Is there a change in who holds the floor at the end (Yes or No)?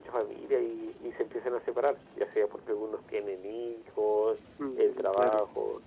No